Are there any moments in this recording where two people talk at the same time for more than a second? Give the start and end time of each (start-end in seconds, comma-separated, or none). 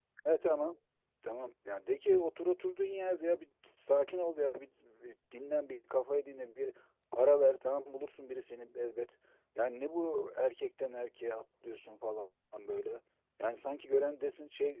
none